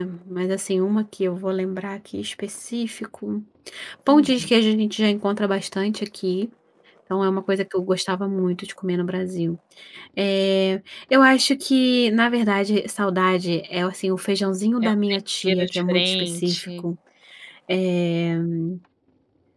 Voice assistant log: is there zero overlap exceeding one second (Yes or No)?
No